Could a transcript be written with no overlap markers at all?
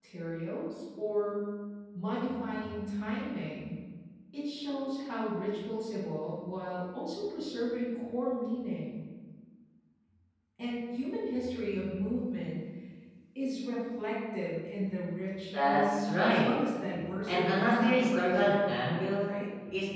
No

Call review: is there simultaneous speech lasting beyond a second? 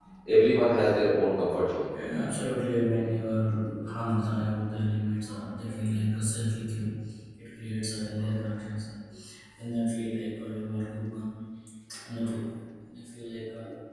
No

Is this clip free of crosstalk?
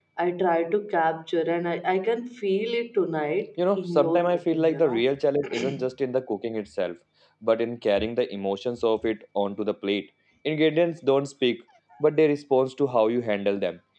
No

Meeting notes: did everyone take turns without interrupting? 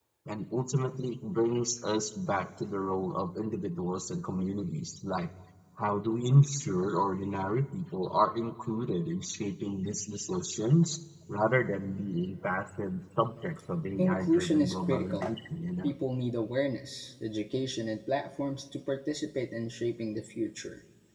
No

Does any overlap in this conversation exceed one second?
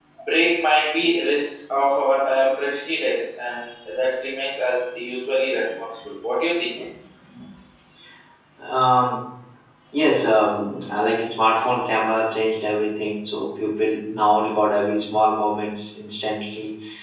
No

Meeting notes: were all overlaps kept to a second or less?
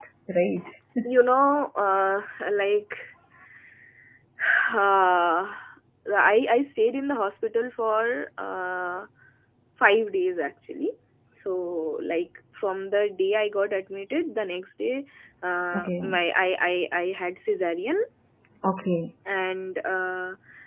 Yes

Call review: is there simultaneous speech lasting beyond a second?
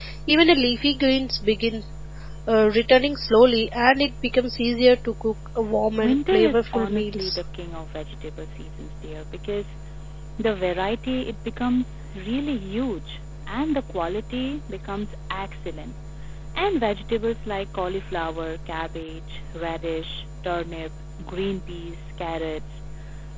Yes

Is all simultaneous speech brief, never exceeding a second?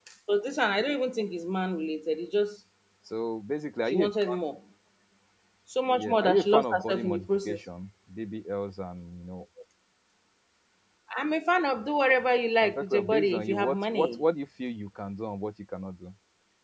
No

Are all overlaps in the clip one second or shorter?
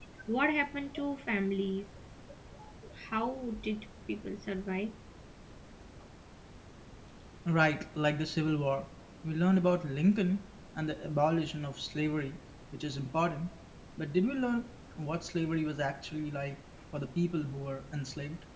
Yes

